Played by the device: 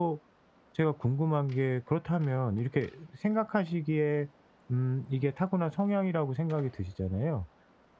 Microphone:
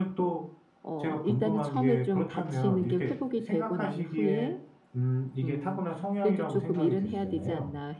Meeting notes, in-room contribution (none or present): present